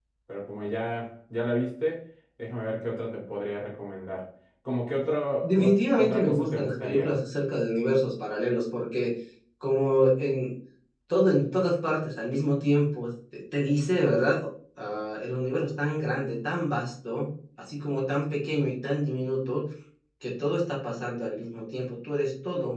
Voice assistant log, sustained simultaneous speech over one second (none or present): present